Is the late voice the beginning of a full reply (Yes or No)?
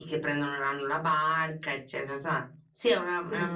No